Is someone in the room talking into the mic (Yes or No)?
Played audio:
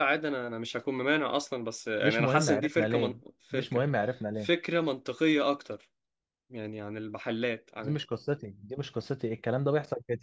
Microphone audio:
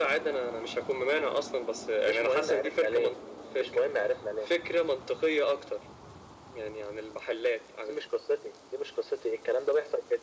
No